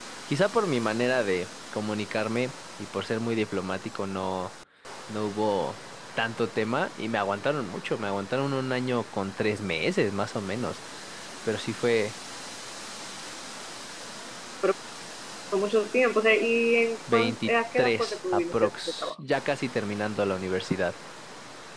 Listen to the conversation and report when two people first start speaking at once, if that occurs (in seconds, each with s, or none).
17.1 s